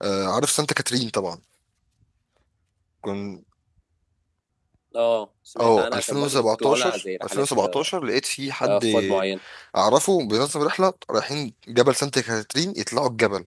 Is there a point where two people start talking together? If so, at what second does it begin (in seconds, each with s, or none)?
5.6 s